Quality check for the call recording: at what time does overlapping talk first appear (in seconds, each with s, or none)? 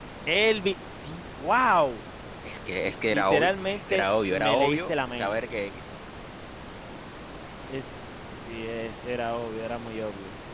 2.8 s